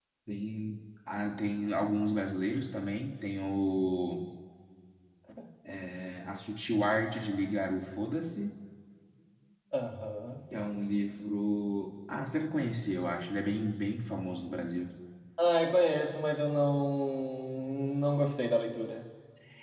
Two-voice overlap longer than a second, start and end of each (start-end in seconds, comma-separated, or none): none